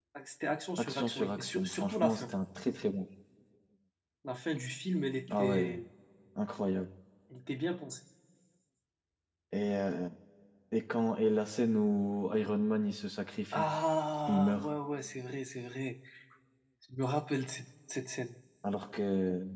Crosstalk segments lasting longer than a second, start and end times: 0.8-2.2

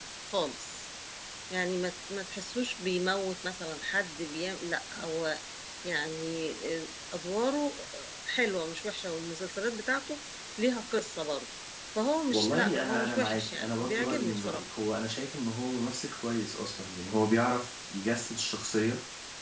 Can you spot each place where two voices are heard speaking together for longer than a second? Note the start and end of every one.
12.3-14.6

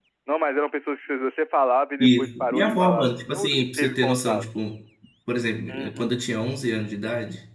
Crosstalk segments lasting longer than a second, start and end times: 2.0-4.4

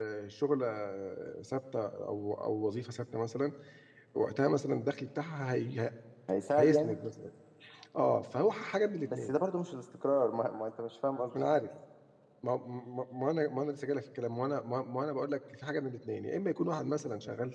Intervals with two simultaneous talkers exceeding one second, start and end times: none

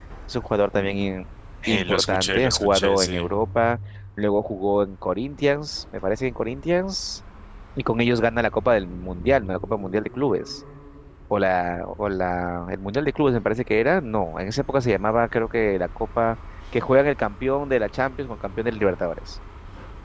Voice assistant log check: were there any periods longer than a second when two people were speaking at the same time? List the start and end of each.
1.7-3.3

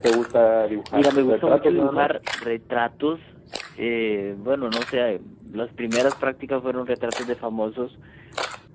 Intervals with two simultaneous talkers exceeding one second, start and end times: 0.9-2.1

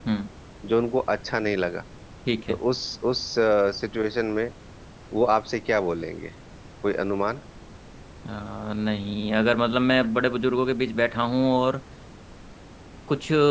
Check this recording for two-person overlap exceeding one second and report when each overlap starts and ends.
none

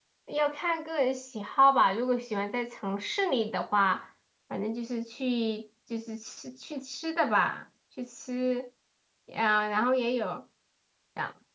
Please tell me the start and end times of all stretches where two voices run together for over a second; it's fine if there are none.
none

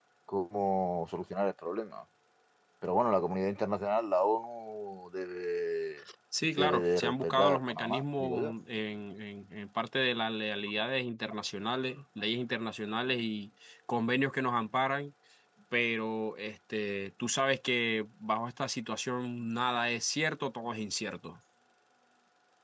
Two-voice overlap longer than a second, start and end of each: 6.6-8.5

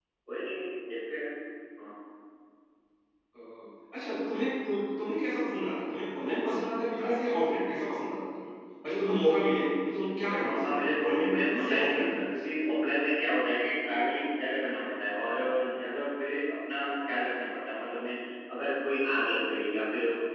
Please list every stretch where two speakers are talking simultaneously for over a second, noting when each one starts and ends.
10.2-12.4

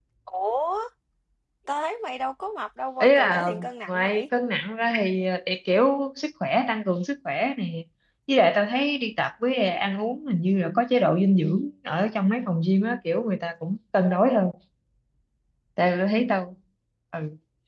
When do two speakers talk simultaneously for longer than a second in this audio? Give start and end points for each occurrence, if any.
3.0-4.2

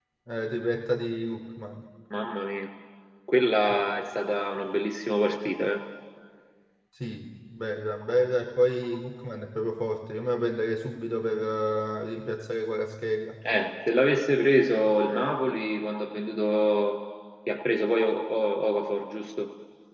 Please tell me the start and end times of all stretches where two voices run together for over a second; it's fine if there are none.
none

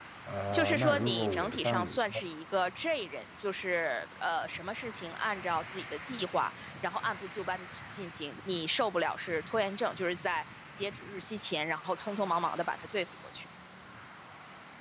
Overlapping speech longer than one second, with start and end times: 0.5-2.0

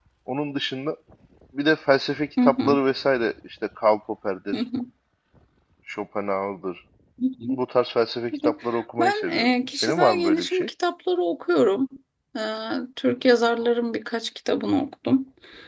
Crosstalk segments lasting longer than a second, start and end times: 9.0-10.7

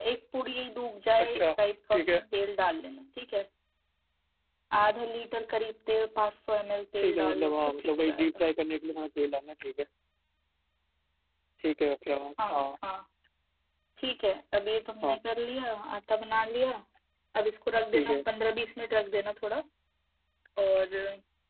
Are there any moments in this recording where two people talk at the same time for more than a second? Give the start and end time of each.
7.0-8.2

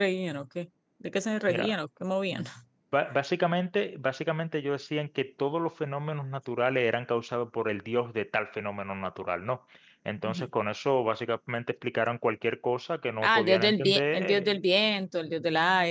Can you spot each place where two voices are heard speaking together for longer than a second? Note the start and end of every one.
13.2-14.6

